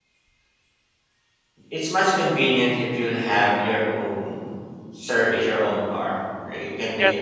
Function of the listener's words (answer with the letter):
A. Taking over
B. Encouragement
A